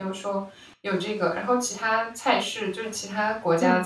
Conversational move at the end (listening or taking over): listening